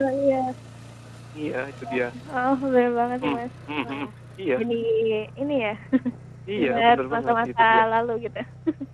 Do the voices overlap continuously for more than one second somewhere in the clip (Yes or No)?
Yes